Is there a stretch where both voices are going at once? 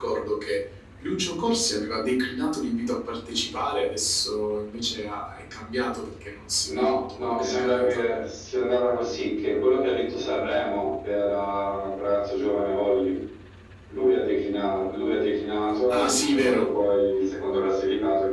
Yes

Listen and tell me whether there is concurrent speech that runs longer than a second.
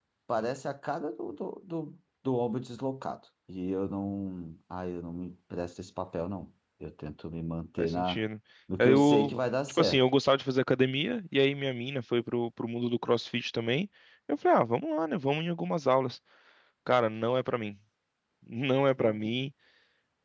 Yes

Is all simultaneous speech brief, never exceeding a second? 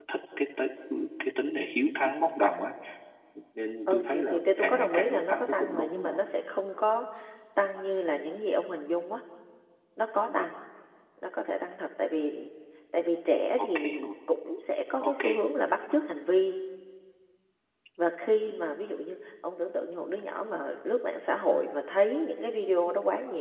No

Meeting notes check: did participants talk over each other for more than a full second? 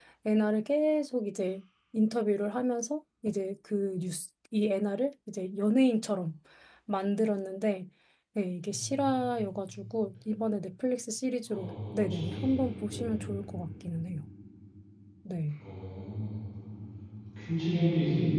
Yes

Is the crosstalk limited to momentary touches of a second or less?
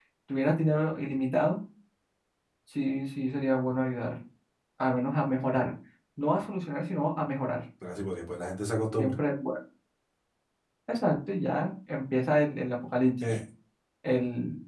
Yes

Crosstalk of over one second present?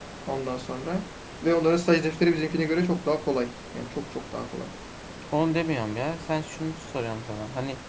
No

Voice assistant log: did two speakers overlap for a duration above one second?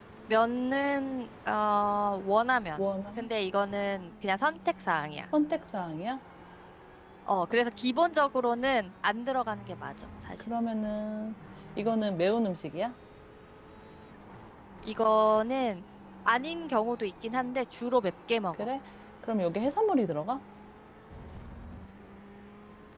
No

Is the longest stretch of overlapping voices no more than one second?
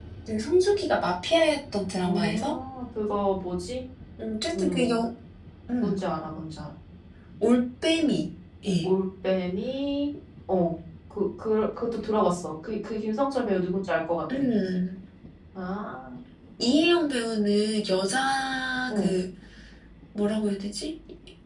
Yes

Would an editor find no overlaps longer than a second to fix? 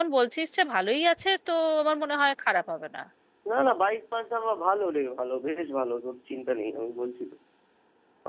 Yes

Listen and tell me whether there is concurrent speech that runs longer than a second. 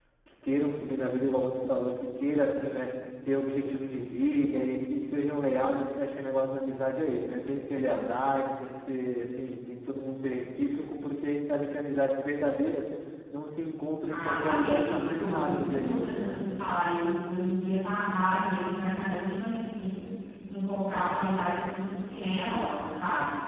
Yes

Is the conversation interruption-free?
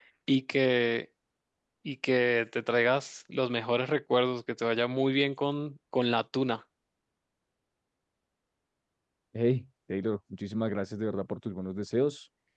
Yes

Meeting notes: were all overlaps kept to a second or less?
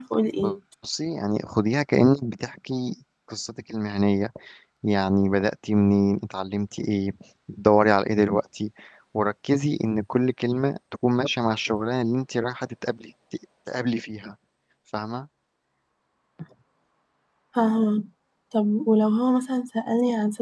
Yes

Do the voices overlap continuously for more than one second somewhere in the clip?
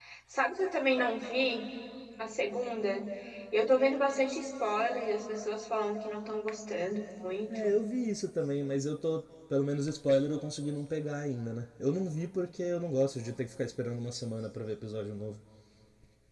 No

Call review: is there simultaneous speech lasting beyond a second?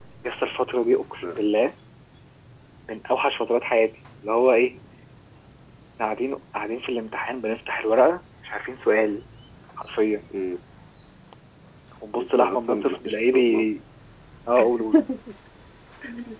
Yes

